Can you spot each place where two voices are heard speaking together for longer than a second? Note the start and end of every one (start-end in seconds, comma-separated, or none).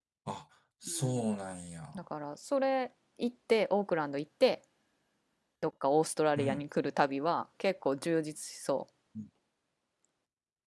none